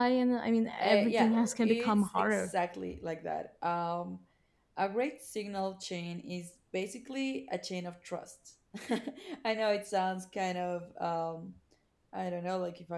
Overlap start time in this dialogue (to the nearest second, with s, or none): 1 s